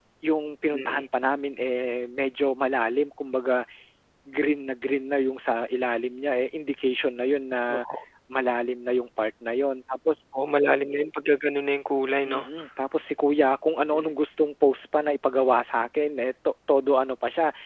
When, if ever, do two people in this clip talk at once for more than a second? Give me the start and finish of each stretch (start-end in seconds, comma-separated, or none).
none